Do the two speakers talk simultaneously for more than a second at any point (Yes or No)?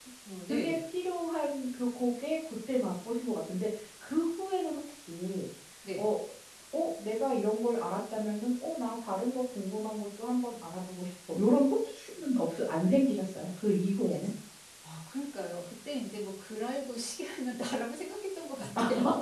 No